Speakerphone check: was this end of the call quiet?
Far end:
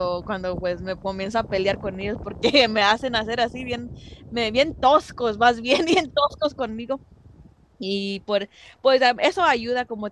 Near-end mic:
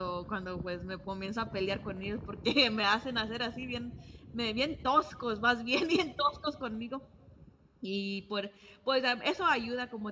Yes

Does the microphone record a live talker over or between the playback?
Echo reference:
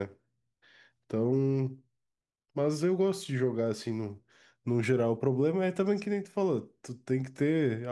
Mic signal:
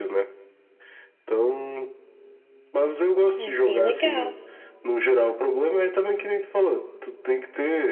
Yes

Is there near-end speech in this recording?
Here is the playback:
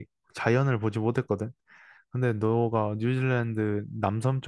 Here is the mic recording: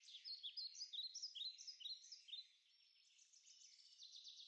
No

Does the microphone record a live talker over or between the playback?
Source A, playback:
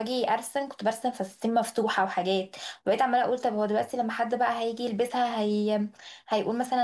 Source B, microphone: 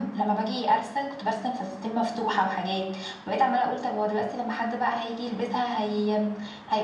No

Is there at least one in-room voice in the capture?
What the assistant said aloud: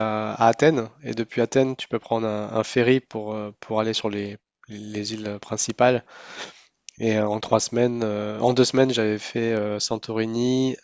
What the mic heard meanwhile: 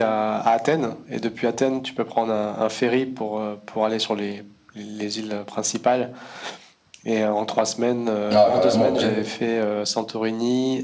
Yes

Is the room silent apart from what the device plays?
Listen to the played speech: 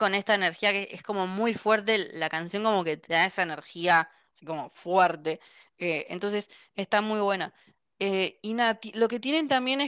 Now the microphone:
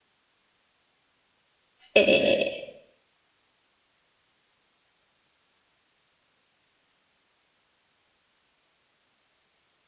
No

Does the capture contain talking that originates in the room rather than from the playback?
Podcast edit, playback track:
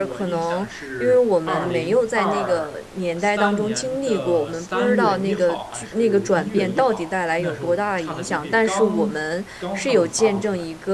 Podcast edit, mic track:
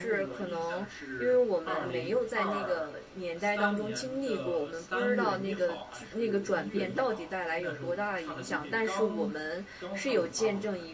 No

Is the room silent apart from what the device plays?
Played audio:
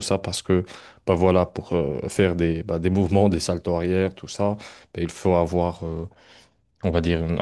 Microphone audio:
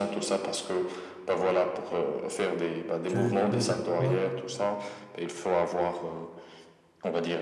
No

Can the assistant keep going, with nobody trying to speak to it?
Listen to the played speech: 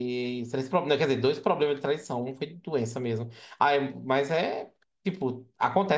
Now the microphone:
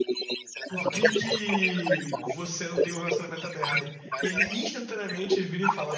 No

